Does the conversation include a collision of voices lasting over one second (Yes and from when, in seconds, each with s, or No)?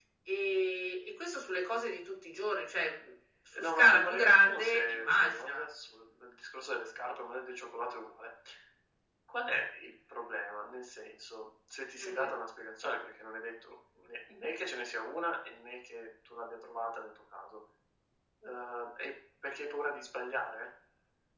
Yes, from 3.6 s